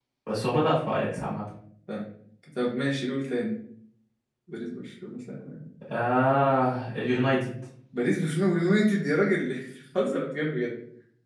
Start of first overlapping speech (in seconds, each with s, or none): none